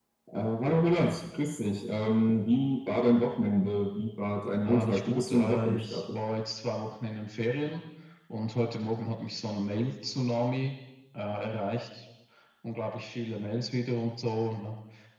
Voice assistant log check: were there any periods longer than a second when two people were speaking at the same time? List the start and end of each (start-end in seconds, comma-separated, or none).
4.6-6.1